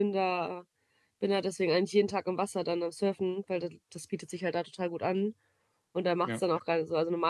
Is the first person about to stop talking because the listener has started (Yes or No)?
No